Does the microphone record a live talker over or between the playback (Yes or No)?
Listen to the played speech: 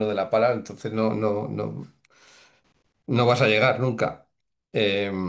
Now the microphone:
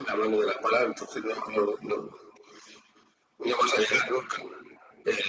No